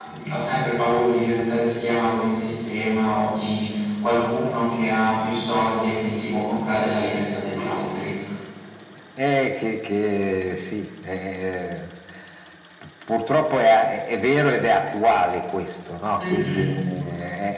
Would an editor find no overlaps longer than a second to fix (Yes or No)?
Yes